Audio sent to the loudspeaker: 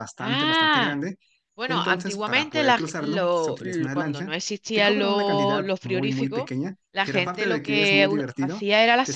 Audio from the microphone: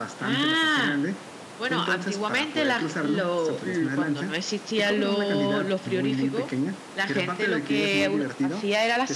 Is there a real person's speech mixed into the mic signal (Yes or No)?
No